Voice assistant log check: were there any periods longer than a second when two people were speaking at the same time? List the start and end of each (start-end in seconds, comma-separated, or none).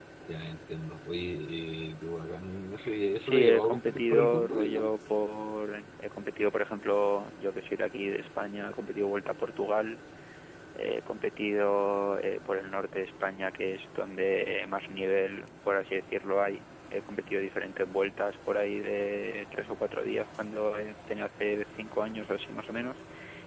3.2-4.9